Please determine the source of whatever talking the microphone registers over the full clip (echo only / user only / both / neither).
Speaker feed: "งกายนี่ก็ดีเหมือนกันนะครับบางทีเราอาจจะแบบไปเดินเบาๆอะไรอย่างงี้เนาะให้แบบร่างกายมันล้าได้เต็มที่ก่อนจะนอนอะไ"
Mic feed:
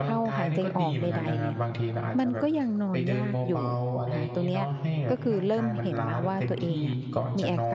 both